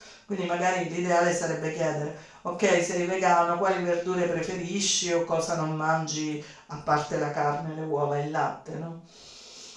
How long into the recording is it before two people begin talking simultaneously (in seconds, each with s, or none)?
none